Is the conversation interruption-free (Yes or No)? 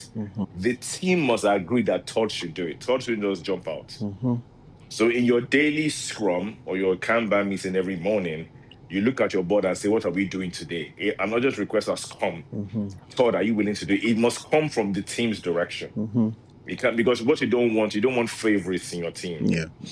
Yes